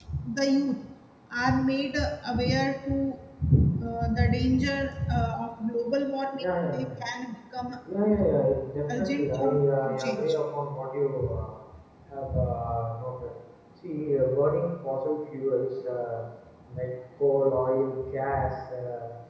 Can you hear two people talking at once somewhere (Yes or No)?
Yes